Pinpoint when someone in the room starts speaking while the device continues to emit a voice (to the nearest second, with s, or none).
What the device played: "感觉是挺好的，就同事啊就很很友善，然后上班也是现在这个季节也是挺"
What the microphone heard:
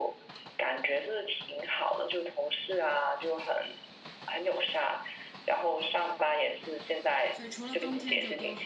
7 s